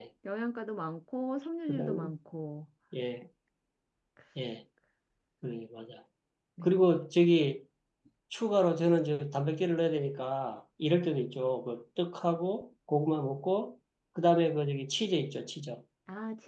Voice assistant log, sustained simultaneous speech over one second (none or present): none